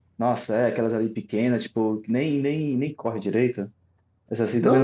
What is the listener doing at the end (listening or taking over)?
taking over